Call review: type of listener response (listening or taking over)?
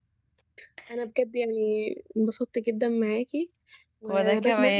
listening